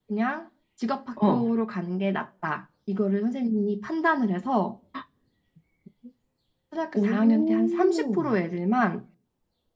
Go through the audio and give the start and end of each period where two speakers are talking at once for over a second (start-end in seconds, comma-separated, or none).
7.0-8.2